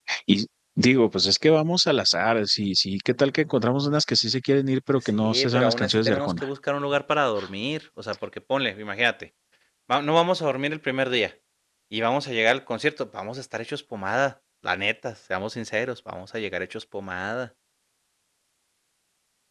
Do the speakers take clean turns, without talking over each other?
No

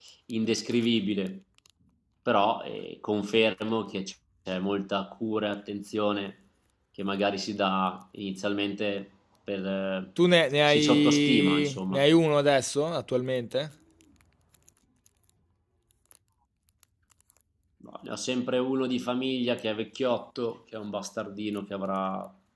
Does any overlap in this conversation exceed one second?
Yes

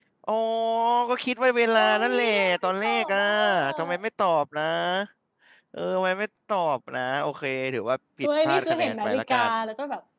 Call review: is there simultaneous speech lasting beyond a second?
Yes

